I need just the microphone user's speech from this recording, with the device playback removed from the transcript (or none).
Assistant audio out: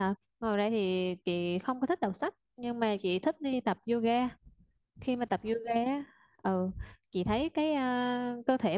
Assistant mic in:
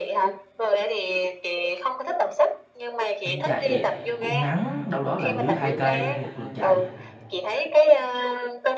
em chạy cũng ngắn đâu đó là dưới hai cây một lần chạy